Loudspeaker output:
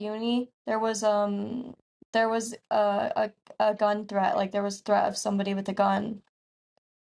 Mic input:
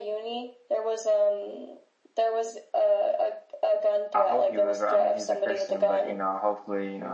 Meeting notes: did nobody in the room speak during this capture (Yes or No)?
No